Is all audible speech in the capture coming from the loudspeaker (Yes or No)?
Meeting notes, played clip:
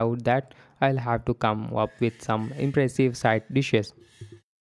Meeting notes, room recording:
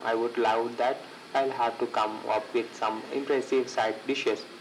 Yes